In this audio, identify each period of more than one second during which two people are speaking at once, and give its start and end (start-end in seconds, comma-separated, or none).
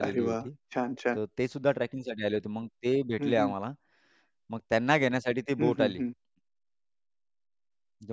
none